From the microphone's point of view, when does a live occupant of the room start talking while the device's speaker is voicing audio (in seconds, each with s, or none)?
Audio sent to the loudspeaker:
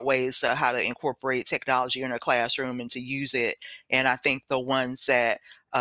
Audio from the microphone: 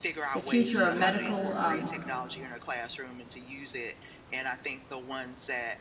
0.3 s